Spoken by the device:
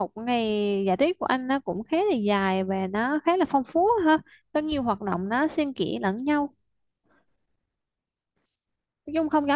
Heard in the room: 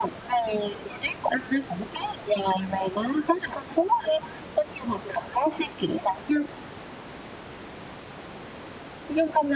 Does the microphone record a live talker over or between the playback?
No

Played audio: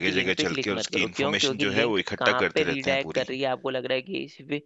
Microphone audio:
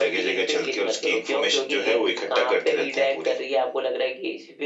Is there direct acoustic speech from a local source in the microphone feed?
No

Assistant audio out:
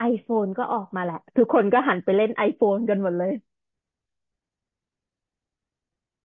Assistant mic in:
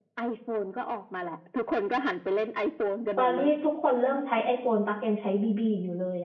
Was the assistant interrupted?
Yes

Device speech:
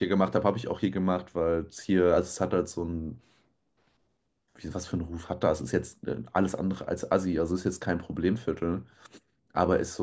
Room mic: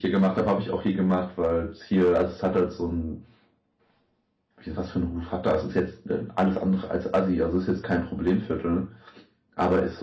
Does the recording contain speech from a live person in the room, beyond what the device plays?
No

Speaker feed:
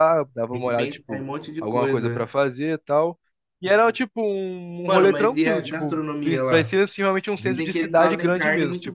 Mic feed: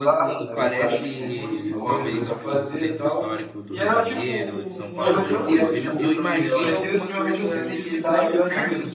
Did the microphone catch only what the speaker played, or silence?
No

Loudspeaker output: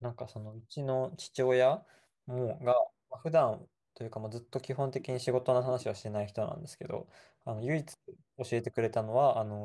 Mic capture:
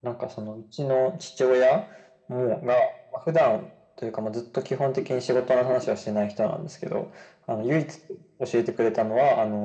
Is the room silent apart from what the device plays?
Yes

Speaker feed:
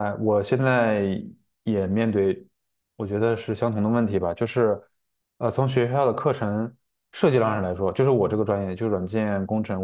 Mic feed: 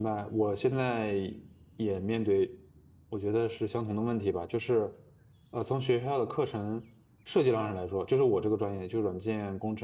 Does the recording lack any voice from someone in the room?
Yes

